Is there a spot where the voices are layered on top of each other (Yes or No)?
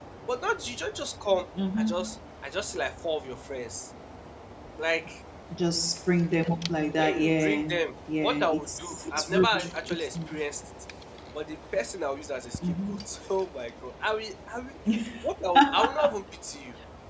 Yes